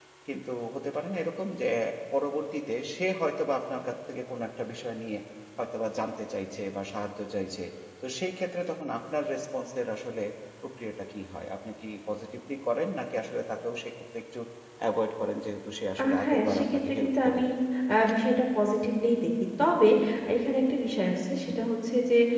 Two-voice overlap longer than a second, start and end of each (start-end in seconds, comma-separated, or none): 16.0-17.4